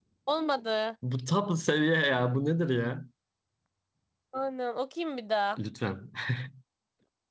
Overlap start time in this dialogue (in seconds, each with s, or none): none